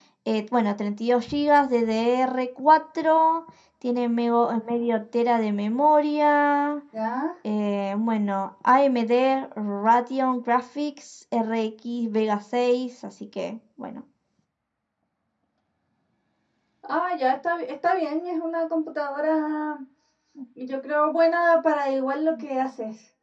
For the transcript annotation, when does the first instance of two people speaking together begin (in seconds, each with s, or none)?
none